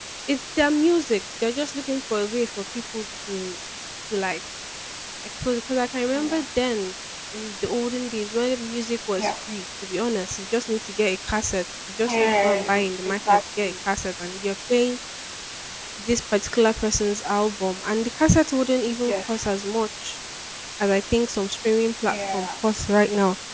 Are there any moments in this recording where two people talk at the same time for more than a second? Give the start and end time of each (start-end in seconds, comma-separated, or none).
12.1-13.7